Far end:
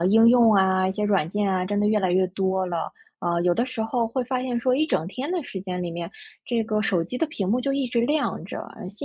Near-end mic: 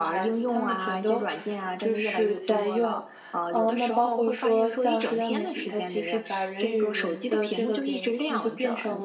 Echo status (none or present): present